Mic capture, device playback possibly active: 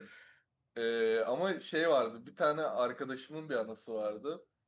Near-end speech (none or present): present